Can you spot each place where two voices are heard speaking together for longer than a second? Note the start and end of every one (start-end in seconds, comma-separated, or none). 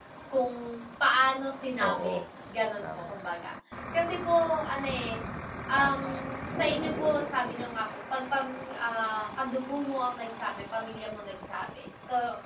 none